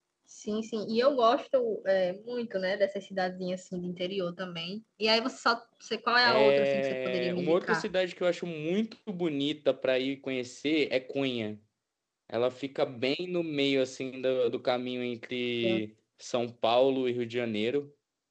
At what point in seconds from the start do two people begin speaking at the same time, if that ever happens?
6.2 s

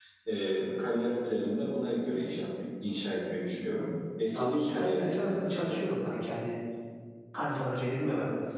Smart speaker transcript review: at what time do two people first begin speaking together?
4.3 s

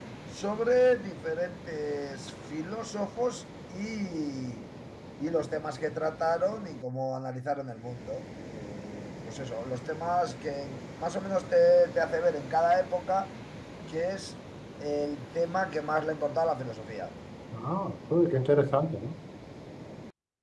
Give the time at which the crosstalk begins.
none

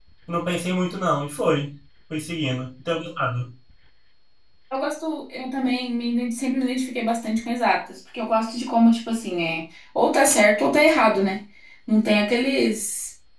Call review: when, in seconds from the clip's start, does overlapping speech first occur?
none

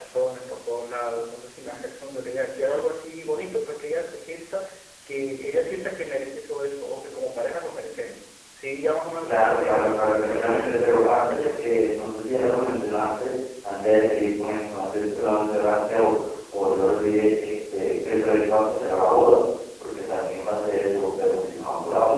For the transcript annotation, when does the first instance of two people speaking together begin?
9.2 s

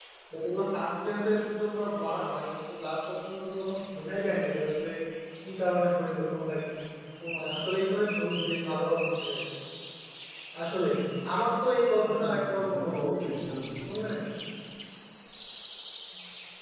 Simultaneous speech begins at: 12.1 s

